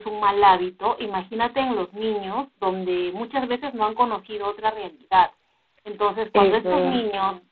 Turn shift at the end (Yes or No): No